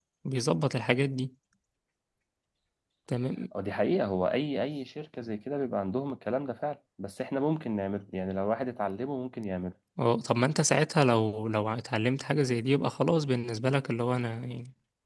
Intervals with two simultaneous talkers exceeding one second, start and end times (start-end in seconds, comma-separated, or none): none